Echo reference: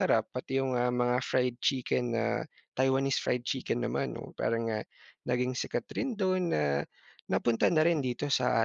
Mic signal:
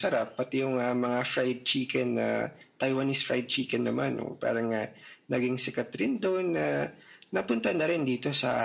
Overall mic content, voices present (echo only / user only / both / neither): echo only